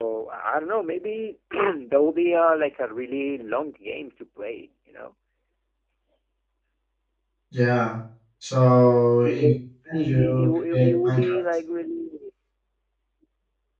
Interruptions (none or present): present